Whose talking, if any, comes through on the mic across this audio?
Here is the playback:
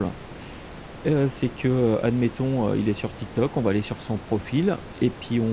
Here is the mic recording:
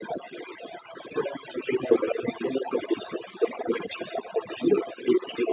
echo only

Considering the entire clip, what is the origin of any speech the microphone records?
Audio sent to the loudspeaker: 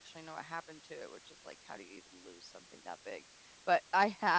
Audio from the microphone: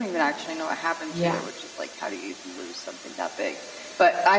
both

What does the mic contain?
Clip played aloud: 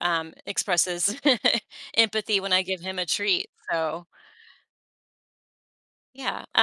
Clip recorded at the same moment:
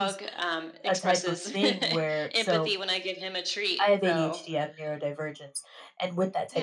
both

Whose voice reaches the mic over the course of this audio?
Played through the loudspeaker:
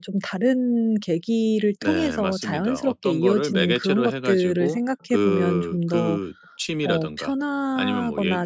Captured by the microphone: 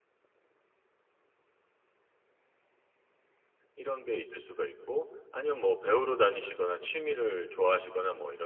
user only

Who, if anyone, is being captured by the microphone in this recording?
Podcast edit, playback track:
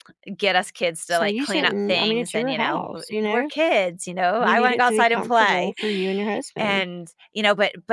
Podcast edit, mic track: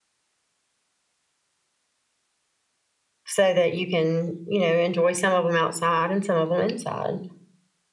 user only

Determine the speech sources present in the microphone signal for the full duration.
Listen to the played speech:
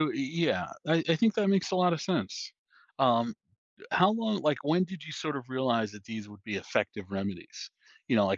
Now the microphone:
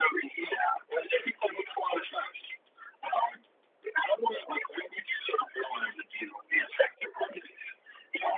echo only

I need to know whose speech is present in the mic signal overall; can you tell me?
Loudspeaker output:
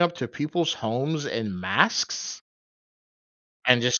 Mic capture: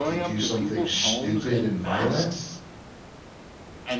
both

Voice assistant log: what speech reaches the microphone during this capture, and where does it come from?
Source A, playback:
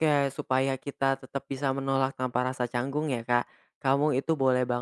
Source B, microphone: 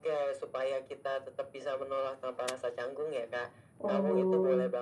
both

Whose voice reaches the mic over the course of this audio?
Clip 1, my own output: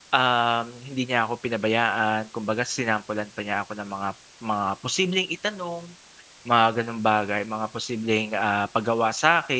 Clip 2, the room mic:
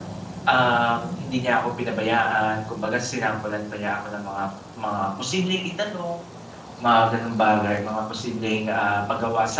echo only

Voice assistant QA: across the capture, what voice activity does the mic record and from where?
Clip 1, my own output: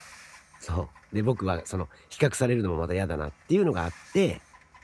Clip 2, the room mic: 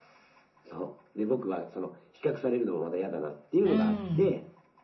both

